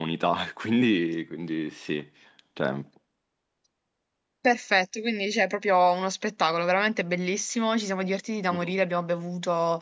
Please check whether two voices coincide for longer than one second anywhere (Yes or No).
No